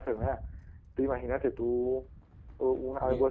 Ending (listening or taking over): listening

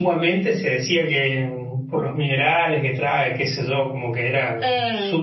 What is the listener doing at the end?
taking over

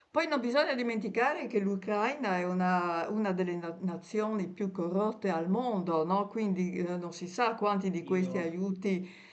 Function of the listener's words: listening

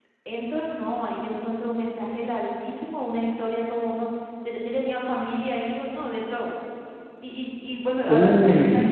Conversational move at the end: listening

